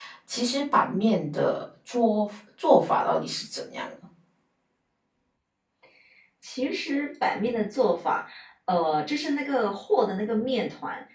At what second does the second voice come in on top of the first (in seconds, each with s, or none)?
none